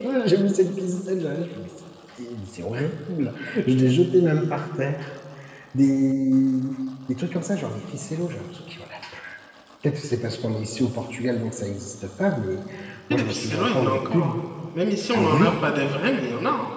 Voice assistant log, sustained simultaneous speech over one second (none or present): present